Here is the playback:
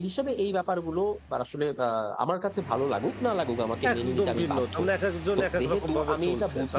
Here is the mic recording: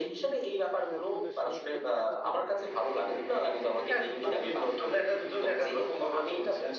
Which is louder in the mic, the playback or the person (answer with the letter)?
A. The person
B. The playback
B